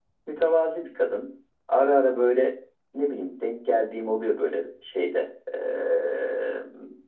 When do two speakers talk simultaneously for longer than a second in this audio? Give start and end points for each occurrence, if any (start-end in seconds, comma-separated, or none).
none